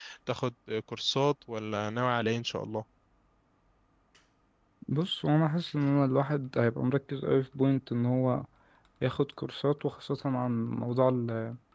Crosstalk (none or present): none